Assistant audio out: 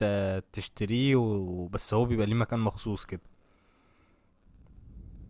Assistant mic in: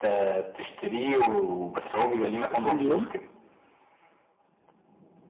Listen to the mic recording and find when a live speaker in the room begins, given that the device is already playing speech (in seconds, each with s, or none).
2.2 s